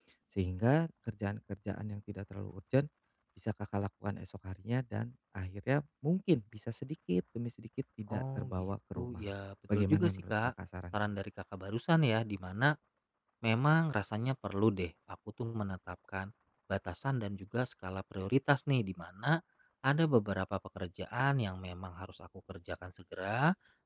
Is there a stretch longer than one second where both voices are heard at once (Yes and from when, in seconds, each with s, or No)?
Yes, from 8.1 s